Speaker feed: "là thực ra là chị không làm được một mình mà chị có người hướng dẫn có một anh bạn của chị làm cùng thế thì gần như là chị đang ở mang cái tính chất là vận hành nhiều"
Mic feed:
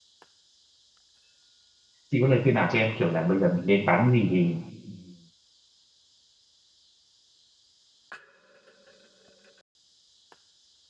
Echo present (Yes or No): No